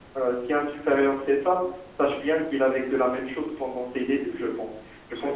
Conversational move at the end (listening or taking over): listening